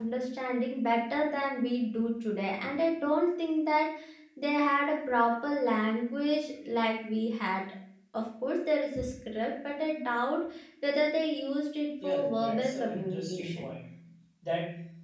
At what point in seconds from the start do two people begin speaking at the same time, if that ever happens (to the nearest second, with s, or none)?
12 s